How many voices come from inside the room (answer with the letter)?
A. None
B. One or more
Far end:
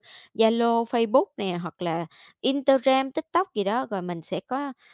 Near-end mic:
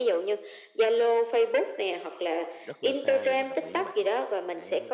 B